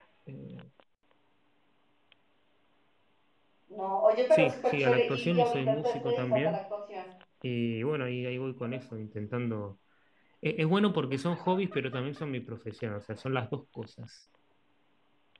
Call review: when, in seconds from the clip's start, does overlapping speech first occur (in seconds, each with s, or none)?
4.3 s